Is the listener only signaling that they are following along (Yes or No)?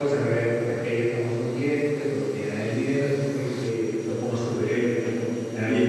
No